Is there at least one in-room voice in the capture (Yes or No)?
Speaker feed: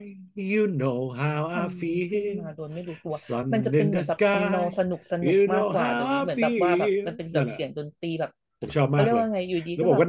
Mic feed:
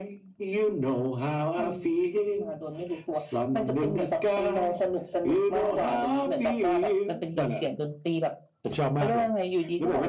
No